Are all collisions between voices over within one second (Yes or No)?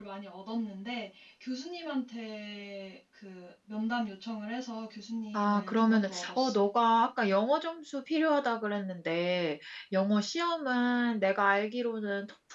No